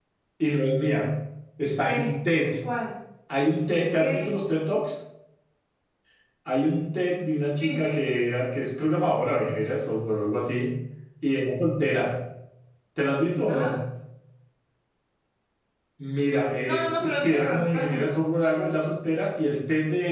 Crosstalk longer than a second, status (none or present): present